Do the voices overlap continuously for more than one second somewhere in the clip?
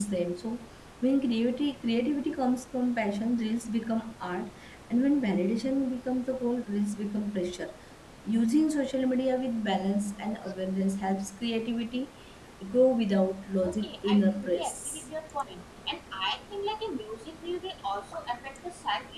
Yes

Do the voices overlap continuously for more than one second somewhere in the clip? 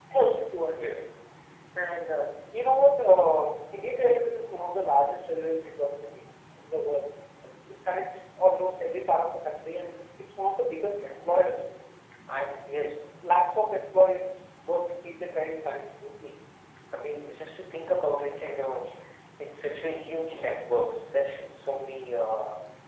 No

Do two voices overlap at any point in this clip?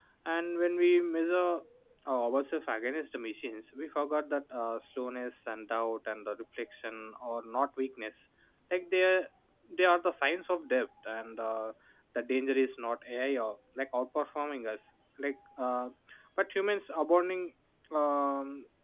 No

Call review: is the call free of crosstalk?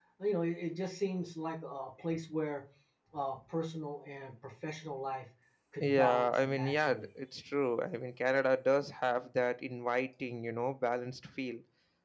No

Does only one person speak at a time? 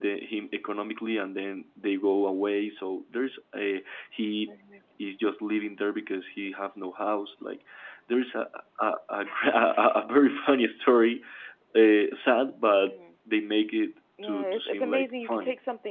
No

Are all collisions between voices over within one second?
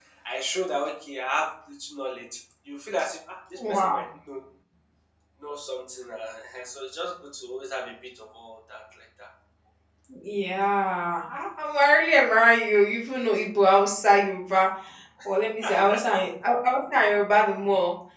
Yes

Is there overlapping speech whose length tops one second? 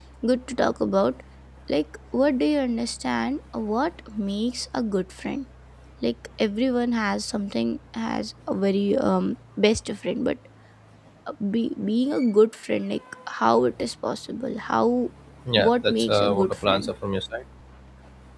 Yes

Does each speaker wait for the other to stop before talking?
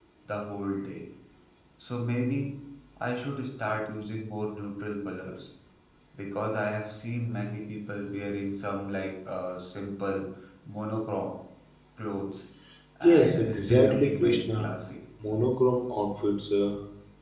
No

